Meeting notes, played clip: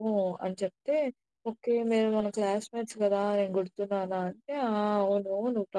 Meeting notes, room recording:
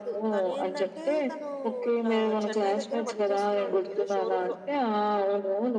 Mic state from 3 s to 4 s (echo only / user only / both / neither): both